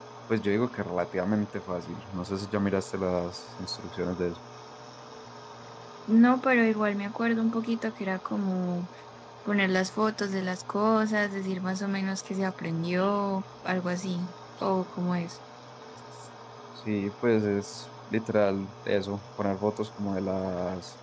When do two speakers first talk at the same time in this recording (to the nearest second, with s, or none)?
none